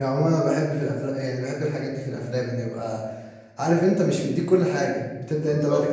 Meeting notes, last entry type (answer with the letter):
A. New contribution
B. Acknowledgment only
B